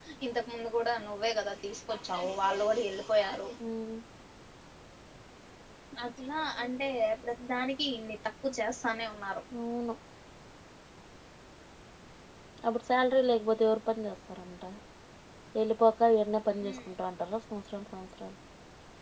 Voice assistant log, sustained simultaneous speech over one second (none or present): none